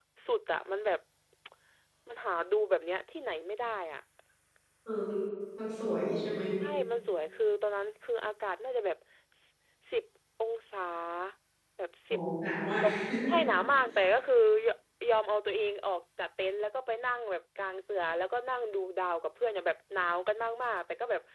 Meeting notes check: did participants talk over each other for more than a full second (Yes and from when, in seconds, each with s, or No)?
No